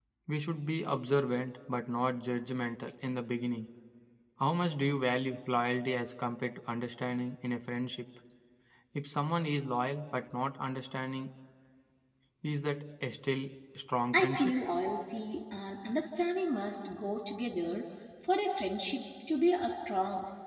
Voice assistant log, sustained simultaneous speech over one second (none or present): none